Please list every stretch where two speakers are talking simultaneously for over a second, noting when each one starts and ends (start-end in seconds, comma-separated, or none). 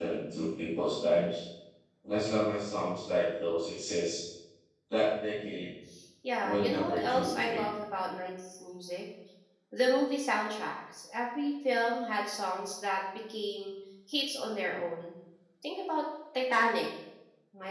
6.4-7.7